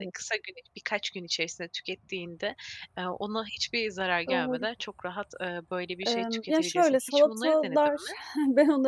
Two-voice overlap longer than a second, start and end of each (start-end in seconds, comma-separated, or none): 6.1-8.0